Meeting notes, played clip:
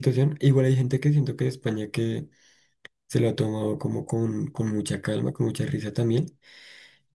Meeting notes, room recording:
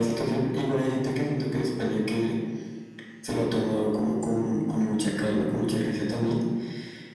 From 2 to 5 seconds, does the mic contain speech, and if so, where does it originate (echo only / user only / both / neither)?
echo only